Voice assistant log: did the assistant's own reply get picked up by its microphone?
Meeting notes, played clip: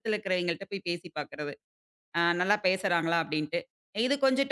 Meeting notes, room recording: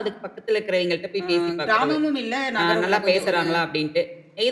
Yes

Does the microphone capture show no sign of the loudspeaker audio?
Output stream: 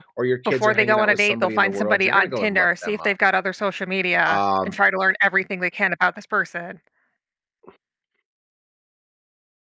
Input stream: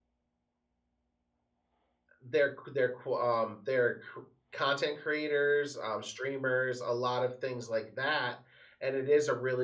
Yes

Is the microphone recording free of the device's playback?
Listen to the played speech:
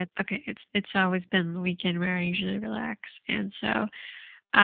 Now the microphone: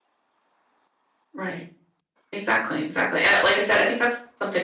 Yes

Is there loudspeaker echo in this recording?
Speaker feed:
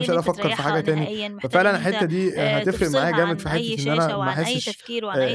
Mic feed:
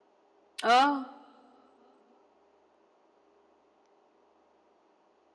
No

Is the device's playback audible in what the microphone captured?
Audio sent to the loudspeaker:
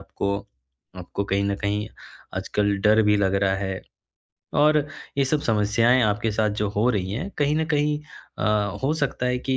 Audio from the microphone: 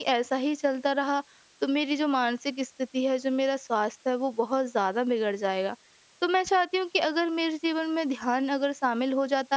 No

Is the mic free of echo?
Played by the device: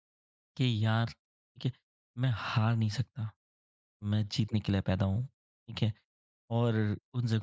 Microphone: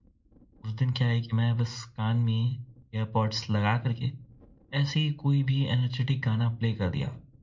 Yes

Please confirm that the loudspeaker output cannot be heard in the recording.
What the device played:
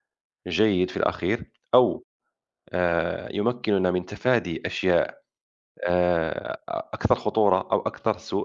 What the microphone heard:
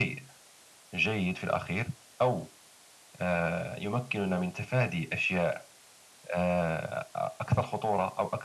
No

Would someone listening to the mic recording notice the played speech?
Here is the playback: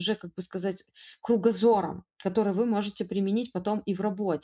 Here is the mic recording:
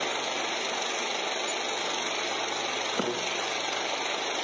No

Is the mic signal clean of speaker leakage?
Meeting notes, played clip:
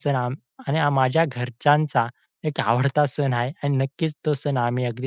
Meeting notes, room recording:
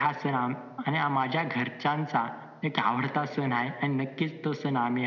No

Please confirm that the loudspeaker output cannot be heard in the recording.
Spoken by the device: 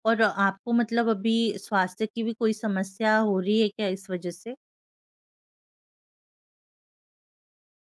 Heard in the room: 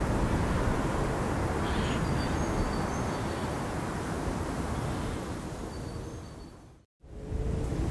Yes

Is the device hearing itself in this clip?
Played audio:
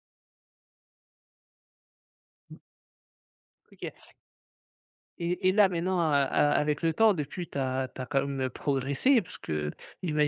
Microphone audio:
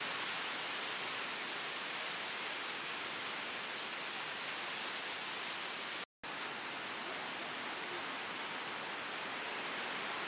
No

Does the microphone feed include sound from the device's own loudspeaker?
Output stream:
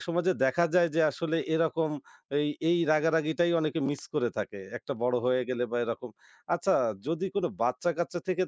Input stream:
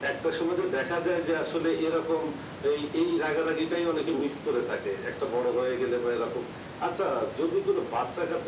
Yes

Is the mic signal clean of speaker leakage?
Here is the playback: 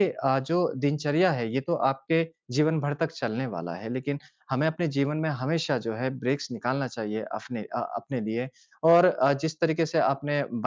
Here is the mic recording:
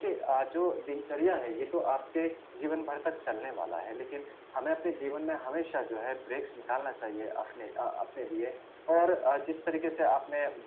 No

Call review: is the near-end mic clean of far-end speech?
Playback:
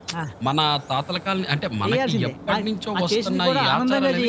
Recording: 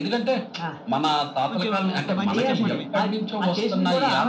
No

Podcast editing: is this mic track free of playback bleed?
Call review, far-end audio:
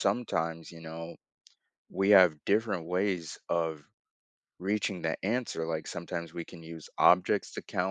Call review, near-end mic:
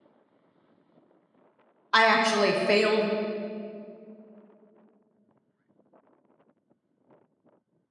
Yes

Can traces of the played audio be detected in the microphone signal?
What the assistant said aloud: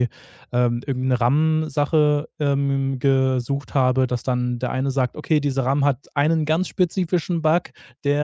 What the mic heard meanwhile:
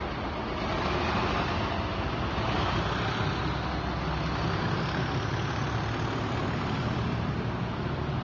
No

